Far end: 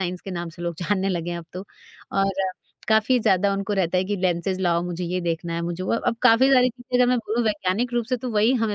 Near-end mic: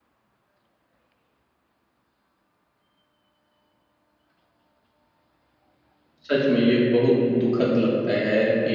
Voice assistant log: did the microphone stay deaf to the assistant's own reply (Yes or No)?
Yes